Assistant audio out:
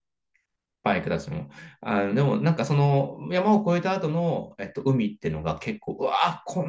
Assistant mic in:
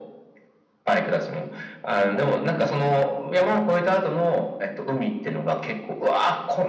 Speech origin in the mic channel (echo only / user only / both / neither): echo only